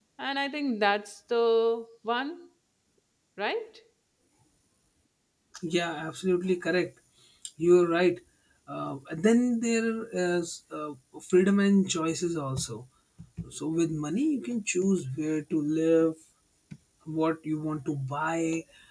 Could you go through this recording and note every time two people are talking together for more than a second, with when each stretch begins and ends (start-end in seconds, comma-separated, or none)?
none